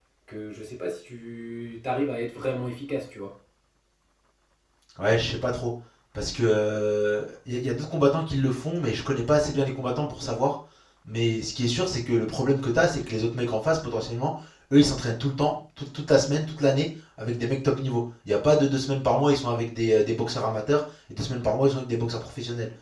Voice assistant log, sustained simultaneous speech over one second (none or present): none